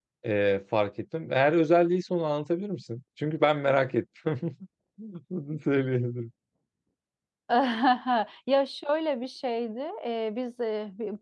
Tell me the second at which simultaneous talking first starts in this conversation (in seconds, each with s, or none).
none